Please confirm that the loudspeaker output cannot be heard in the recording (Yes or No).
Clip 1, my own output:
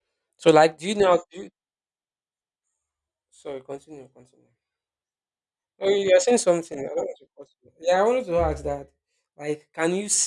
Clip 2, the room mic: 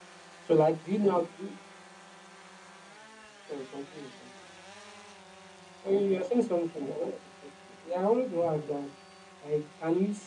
No